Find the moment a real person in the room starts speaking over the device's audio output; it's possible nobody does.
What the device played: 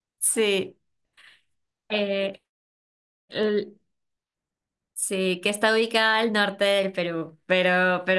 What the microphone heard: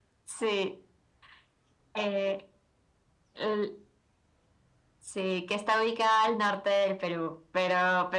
none

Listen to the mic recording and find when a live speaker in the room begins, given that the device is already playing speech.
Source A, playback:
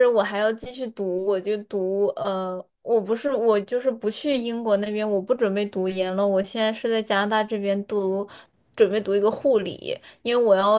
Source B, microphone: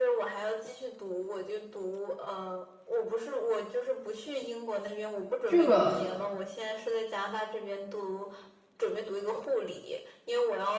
5.4 s

